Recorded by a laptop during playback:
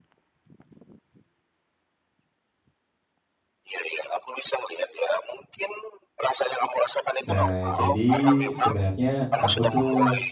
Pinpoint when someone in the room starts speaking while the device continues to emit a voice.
7.2 s

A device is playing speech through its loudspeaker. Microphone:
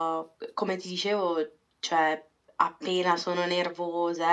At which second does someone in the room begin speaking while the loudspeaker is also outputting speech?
none

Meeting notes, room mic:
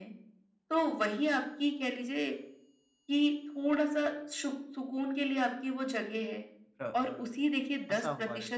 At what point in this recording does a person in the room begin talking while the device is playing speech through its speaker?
6.8 s

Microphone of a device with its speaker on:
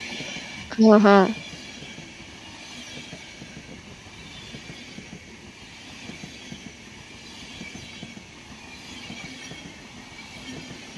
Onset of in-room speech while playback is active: 0.8 s

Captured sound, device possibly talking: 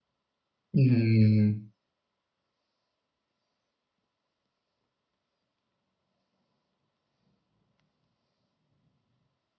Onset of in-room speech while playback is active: 0.8 s

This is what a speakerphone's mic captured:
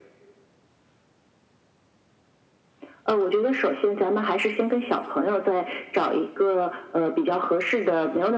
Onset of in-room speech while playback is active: none

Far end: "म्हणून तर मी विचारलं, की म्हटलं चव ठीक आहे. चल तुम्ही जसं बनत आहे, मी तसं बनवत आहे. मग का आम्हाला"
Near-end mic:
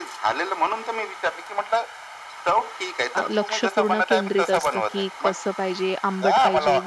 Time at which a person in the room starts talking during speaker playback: 3.2 s

